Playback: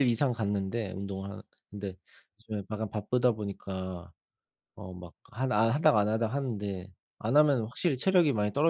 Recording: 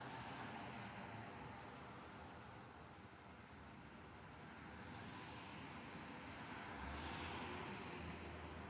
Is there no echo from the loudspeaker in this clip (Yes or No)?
Yes